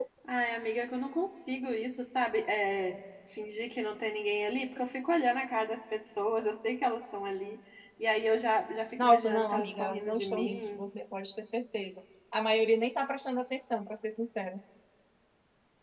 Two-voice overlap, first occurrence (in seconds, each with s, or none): 9.0 s